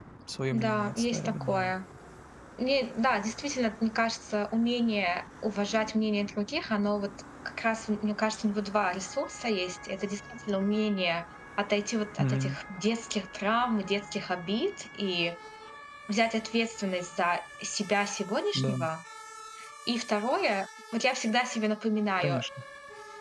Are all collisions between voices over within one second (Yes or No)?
No